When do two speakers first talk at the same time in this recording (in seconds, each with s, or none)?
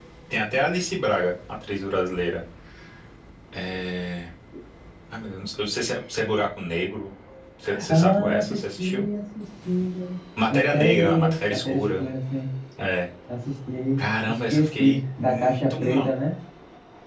7.7 s